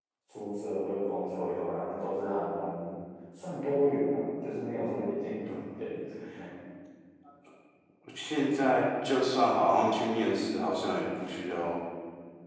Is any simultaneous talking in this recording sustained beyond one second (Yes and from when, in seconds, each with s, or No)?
No